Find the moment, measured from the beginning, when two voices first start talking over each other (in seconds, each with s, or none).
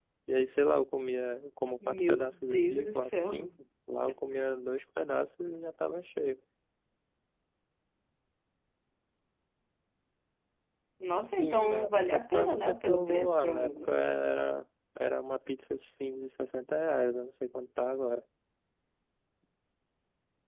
1.9 s